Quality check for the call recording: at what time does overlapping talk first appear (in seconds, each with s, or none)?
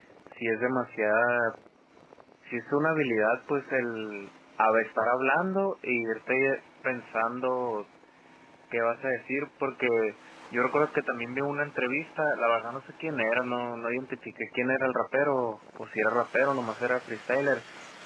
none